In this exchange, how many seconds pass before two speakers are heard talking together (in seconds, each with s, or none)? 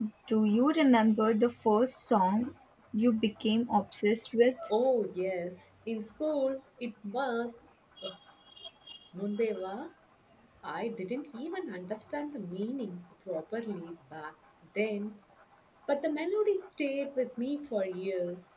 none